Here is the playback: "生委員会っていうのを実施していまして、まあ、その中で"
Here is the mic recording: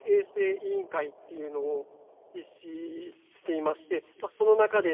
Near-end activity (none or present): none